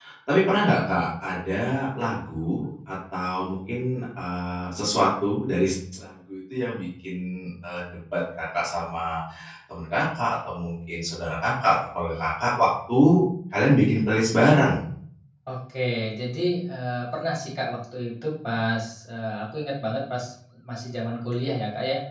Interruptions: none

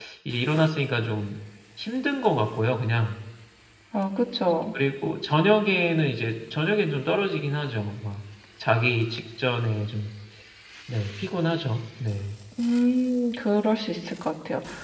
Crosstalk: none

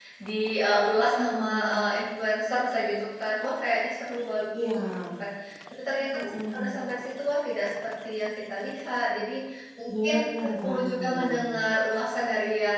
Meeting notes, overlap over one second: present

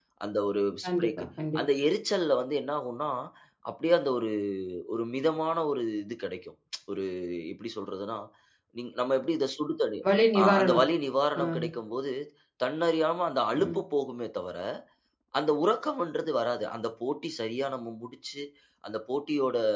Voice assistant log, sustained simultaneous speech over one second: none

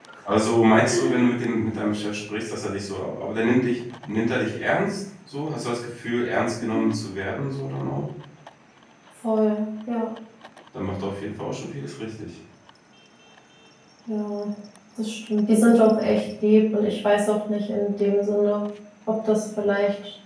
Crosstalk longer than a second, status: none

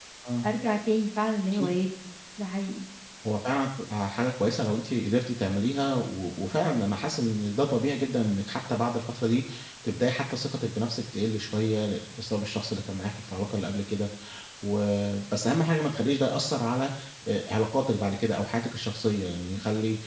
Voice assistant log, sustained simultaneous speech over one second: none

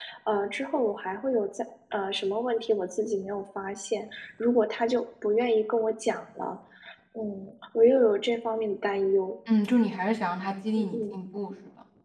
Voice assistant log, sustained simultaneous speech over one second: none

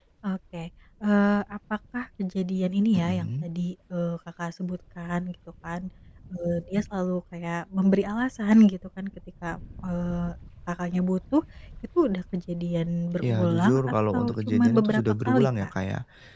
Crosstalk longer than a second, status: present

